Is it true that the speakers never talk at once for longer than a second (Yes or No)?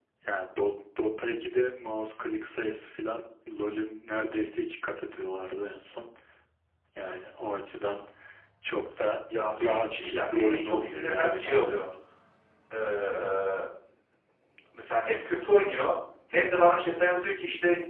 No